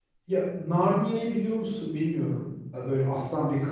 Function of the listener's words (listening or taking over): listening